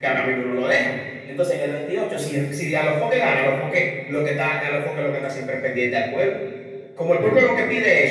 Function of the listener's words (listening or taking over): listening